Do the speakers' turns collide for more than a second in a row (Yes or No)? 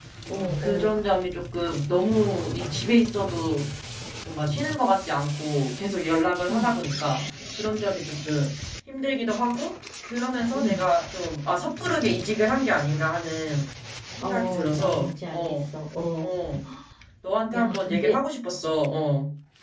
Yes